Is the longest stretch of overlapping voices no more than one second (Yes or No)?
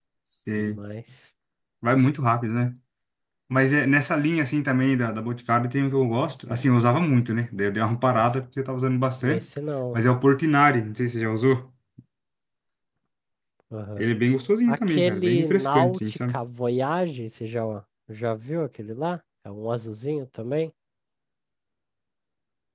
No